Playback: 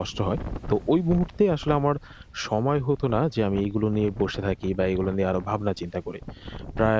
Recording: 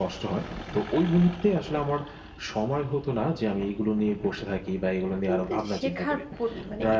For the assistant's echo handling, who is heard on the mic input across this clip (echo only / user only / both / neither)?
both